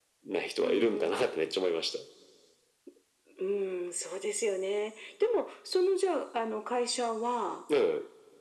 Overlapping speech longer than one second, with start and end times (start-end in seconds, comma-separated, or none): none